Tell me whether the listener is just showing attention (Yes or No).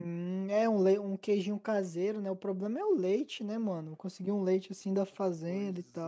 No